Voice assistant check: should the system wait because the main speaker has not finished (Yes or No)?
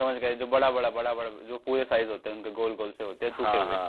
No